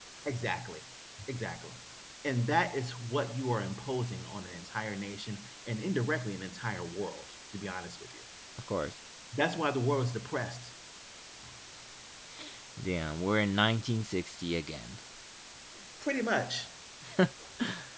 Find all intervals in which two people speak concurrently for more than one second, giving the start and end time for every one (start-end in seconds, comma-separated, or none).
none